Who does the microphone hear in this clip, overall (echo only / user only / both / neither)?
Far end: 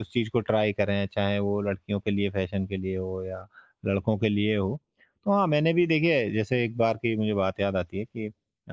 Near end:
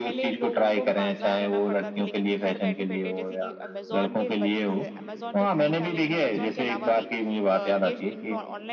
both